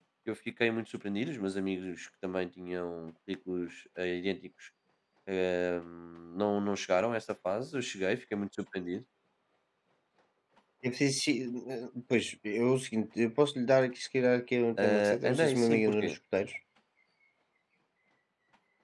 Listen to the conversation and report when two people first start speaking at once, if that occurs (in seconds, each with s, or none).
14.8 s